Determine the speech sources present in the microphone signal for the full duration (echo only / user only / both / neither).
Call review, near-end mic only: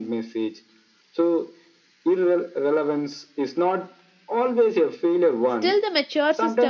both